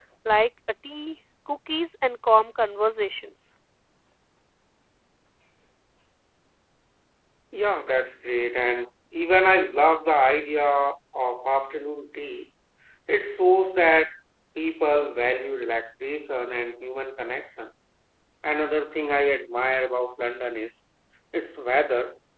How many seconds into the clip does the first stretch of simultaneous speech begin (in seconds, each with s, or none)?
none